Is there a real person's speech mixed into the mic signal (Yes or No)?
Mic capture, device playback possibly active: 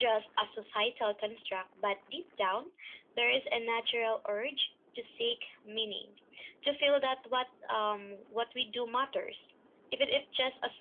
No